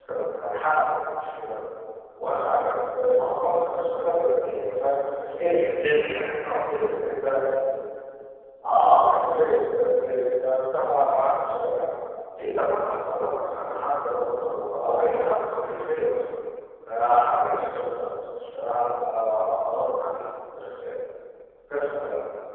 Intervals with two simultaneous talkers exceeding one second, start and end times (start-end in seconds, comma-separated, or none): none